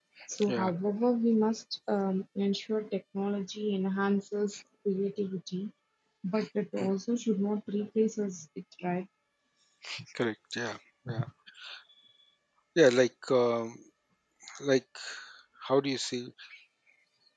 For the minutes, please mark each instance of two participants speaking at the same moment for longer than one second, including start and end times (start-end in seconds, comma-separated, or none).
none